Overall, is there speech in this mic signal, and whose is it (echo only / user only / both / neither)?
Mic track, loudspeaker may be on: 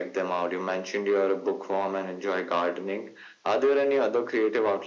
echo only